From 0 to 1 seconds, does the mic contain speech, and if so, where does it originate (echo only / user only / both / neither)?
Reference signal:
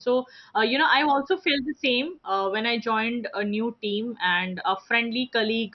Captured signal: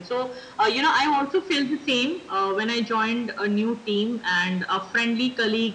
echo only